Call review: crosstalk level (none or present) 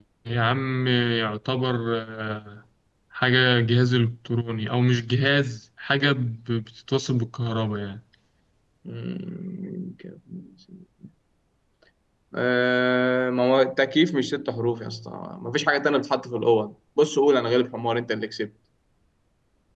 none